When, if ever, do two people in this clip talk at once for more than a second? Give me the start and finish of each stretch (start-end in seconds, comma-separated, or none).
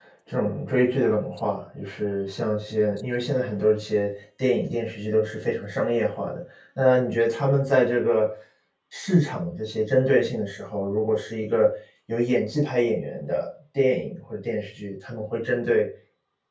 none